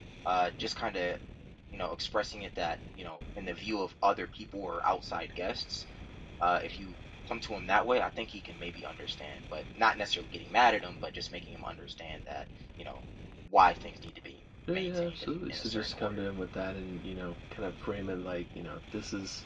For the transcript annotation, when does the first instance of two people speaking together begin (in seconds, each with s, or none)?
14.7 s